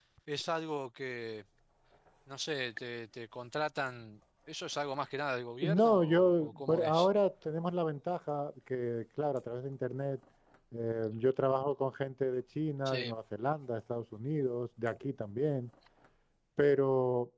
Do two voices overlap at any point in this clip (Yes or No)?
Yes